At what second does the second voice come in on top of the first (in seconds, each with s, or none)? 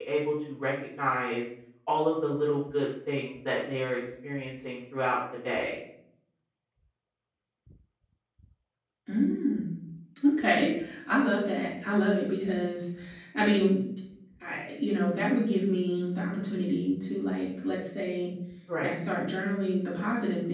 none